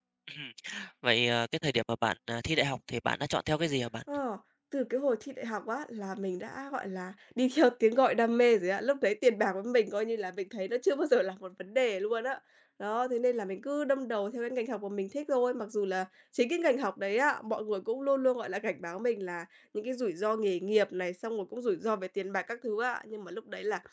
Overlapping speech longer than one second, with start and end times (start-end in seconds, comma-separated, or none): none